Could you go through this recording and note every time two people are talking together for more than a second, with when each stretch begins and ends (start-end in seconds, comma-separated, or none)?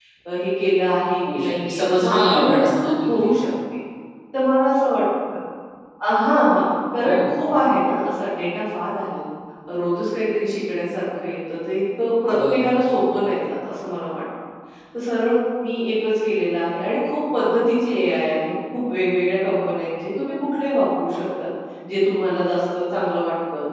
1.3-3.3